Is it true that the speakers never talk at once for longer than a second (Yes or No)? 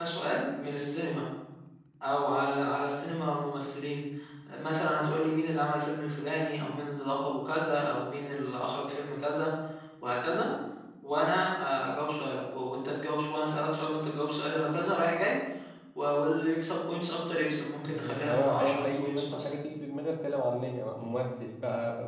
No